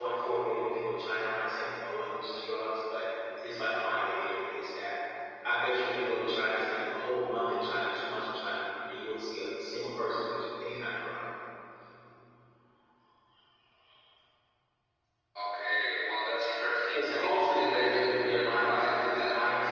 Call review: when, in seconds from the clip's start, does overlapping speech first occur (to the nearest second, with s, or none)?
17 s